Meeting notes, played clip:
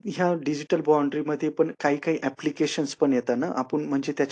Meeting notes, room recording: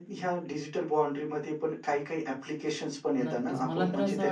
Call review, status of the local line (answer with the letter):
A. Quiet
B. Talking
B